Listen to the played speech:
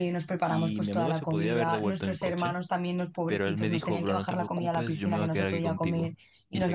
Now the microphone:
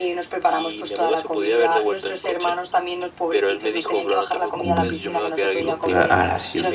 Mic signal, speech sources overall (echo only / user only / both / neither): both